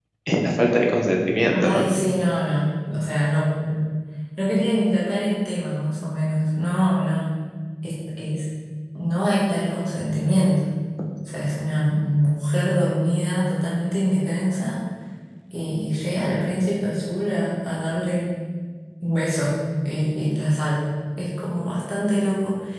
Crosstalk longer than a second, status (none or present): none